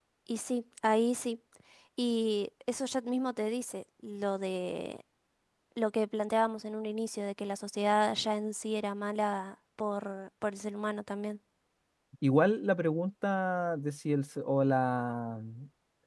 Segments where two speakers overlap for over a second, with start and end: none

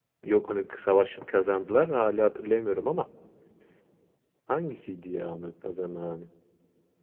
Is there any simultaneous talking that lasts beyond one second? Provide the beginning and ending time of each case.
none

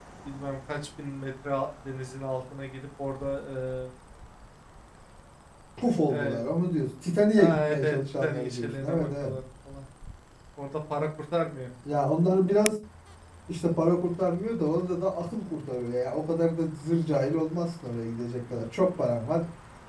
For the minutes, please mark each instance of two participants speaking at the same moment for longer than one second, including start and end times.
7.4-9.3

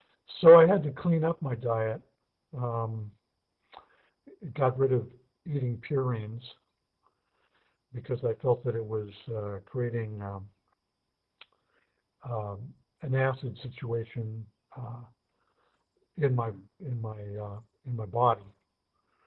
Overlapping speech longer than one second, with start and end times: none

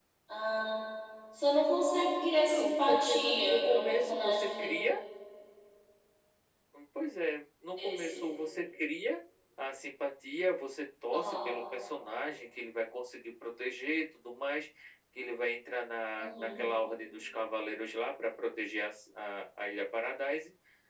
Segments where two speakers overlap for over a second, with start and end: 2.4-4.7

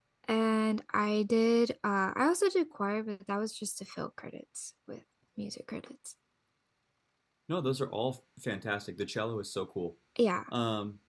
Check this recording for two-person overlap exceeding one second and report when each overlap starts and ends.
none

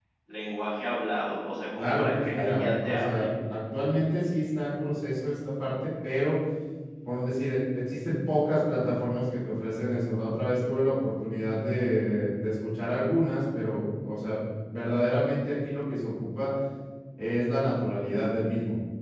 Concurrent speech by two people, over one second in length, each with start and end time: 1.8-3.3

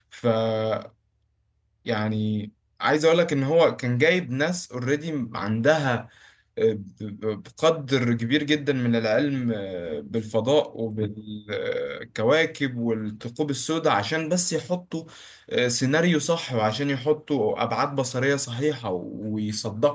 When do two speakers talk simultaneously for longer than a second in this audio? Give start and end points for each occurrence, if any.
none

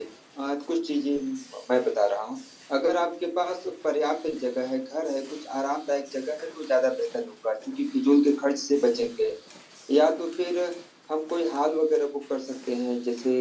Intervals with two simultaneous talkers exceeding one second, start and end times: none

